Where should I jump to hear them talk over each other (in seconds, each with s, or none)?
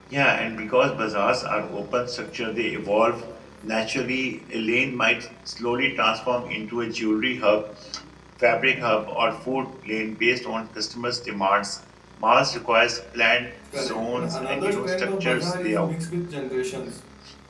13.6 s